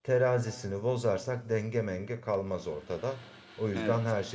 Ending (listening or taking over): listening